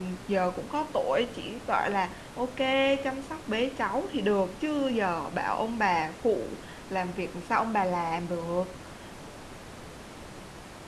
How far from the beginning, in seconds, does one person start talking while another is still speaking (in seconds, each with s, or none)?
none